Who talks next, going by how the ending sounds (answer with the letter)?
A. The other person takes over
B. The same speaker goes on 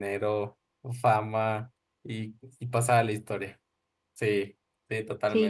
A